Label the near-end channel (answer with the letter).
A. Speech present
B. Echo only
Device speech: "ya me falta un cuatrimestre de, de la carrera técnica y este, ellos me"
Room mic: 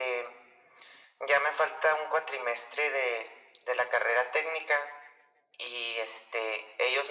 B